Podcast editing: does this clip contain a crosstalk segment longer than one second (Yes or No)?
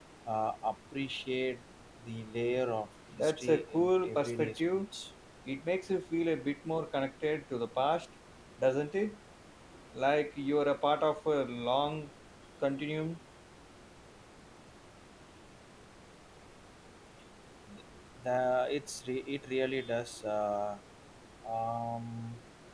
Yes